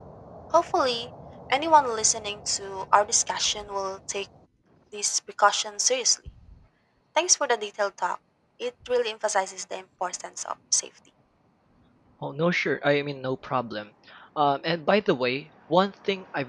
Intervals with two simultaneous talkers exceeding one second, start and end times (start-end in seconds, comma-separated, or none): none